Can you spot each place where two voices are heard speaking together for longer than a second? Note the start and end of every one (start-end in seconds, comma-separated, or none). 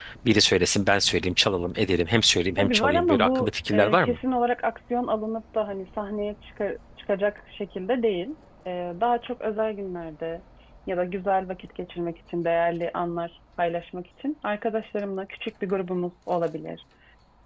2.6-4.2